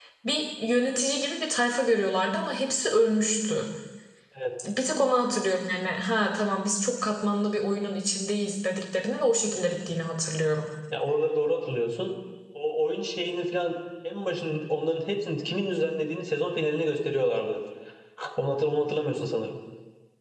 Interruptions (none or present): none